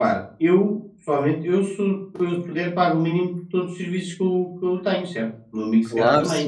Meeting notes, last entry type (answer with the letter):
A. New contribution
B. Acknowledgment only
A